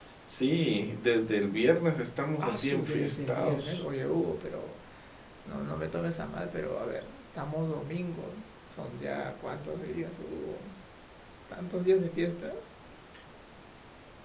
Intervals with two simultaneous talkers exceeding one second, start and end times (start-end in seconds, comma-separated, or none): 2.4-3.8